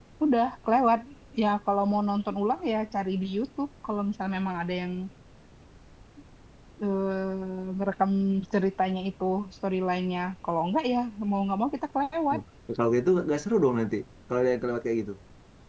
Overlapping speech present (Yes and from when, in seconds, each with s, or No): No